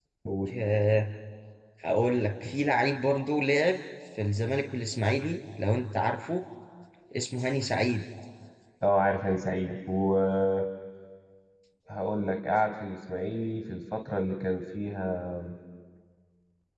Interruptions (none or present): none